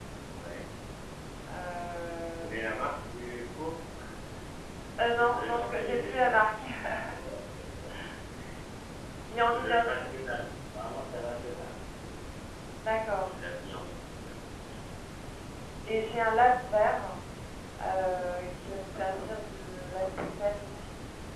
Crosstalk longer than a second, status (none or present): present